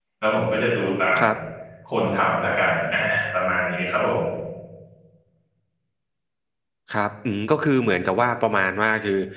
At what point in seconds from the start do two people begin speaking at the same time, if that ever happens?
none

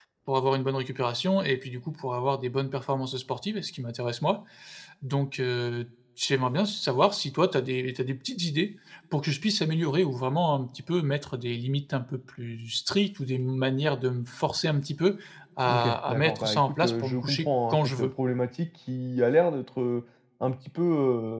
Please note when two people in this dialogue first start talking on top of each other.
15.7 s

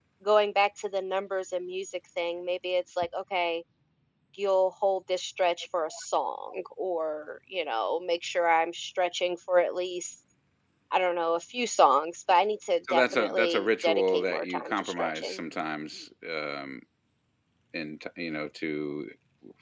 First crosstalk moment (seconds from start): 12.9 s

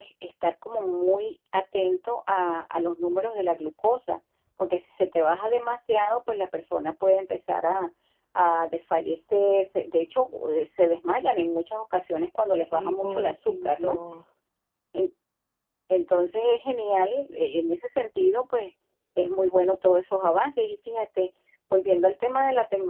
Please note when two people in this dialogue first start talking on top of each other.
12.6 s

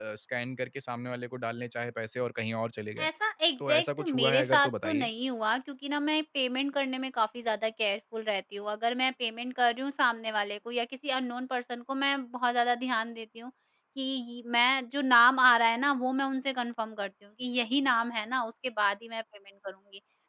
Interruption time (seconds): 3.7 s

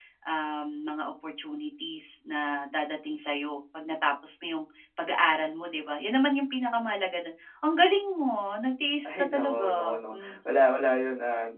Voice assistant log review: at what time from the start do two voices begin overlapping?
9.0 s

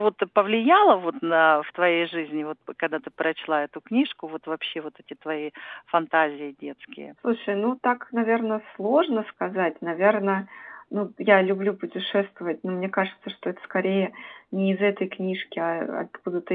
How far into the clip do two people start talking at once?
none

